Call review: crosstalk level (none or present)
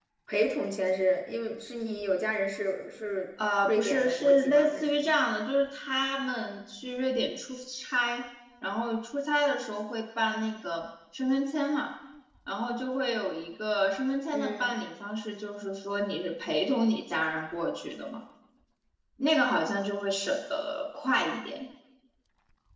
present